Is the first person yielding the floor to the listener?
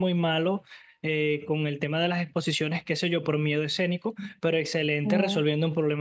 No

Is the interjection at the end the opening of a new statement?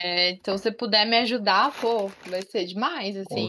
Yes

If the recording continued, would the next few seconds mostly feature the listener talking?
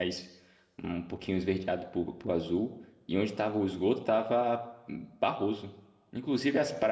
No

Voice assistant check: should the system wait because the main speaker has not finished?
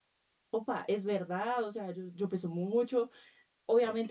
Yes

